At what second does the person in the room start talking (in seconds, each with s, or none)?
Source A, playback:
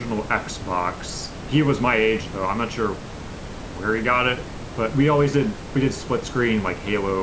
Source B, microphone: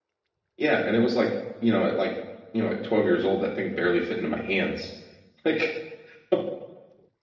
0.6 s